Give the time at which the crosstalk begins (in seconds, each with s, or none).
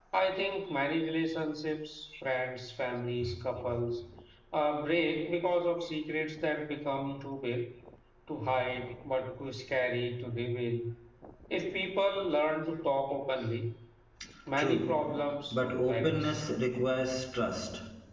14.6 s